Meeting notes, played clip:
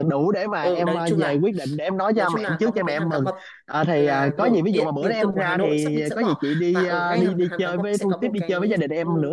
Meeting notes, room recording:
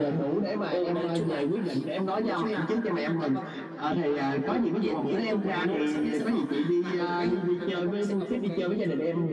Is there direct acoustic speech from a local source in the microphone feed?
No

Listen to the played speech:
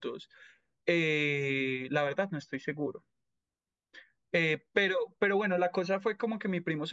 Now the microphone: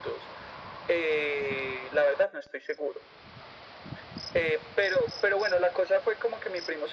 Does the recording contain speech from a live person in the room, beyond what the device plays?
No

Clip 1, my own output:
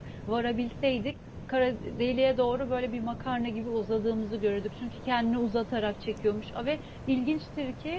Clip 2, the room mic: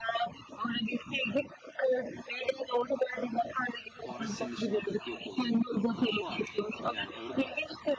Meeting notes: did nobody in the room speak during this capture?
No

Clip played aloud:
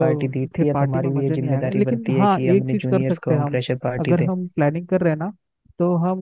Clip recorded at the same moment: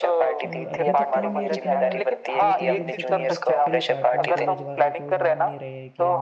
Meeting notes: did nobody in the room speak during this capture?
No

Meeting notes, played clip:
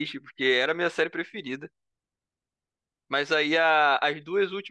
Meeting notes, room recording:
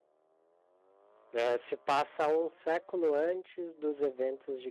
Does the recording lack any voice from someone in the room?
No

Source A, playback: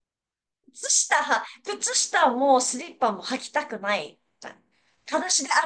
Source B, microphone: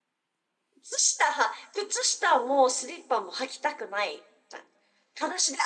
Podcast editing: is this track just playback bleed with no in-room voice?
Yes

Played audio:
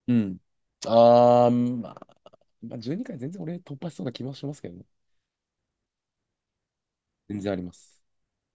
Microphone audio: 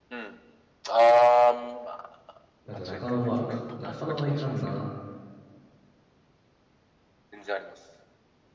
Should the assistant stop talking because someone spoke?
Yes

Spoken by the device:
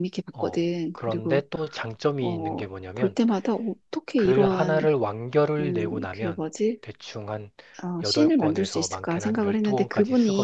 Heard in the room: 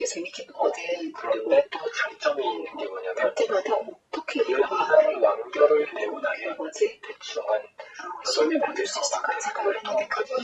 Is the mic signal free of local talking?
Yes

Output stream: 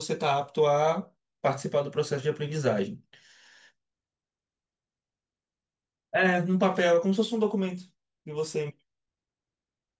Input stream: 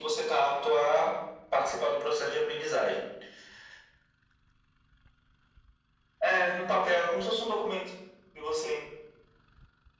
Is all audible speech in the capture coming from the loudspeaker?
Yes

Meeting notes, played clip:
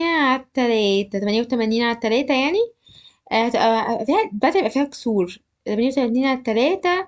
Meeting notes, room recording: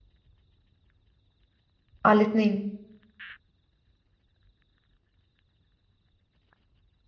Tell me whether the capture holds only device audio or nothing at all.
No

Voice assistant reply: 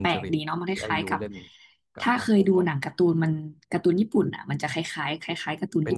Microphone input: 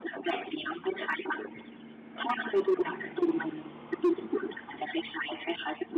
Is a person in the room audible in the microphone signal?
No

